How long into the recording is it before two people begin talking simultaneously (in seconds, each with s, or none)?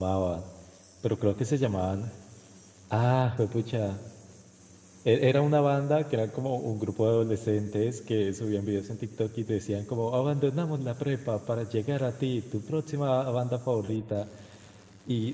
none